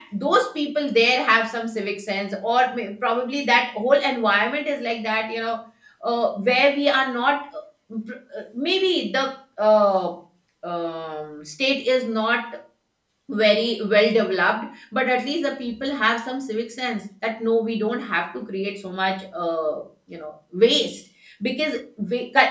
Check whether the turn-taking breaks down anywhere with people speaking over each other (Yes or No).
No